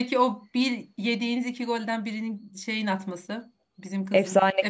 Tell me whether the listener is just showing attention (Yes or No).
No